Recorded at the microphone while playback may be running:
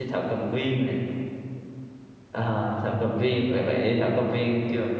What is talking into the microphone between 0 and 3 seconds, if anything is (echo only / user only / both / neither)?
user only